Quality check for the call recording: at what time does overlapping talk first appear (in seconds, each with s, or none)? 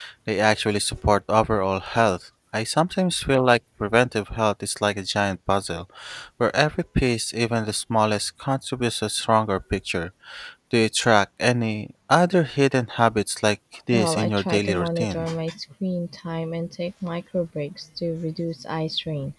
13.9 s